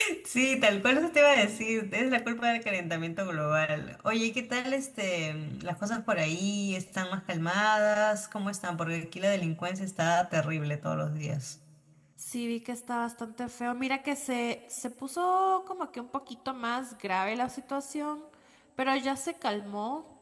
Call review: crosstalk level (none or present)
none